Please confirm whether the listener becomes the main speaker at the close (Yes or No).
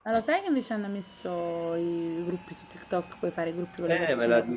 Yes